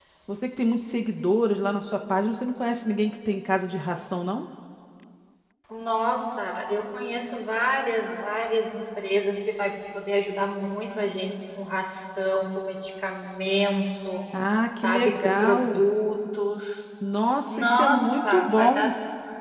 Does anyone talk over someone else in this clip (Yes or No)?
Yes